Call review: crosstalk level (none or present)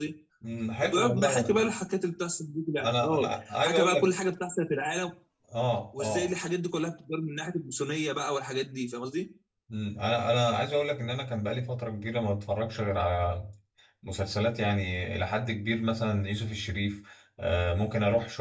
present